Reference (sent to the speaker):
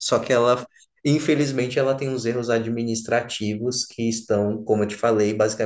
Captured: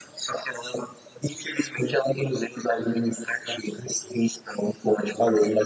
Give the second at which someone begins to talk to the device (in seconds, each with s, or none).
none